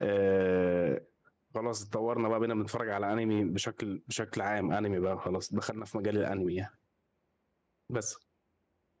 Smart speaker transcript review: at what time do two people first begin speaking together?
none

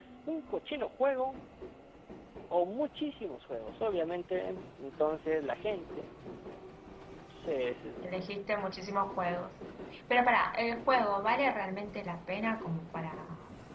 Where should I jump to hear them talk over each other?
none

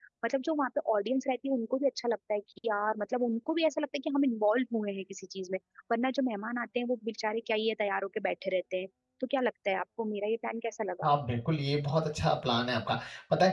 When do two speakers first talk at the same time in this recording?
none

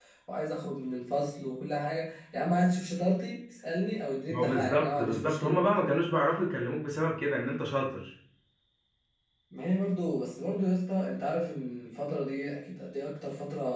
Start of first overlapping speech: 4.3 s

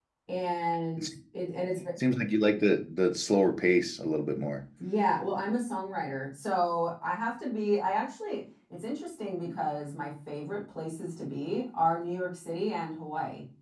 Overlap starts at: none

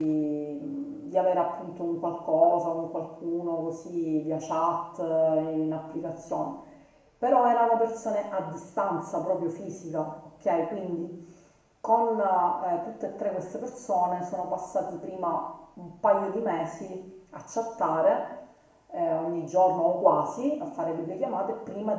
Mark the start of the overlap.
none

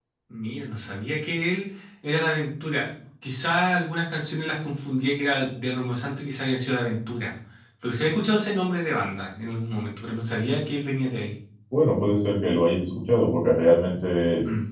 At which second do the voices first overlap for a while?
none

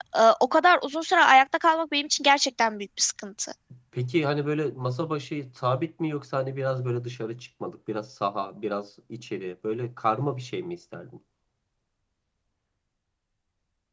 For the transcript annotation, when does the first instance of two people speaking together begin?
none

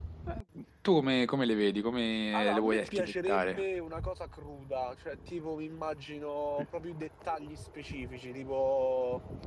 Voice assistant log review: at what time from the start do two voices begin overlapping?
2.3 s

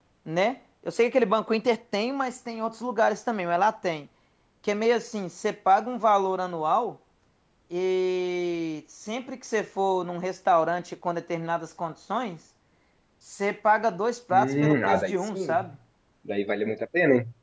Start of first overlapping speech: 14.3 s

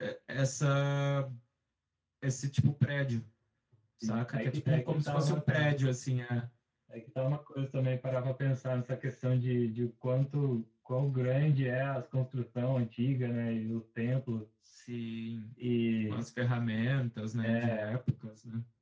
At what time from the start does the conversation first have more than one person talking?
4.0 s

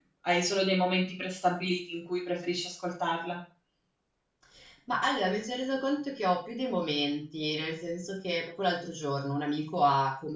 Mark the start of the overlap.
none

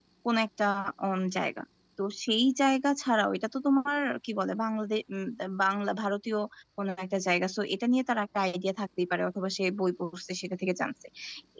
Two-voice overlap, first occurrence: none

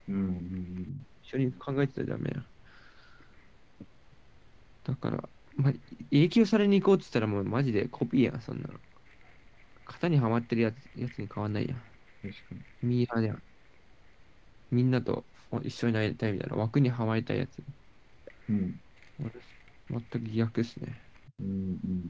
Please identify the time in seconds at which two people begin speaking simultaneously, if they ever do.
none

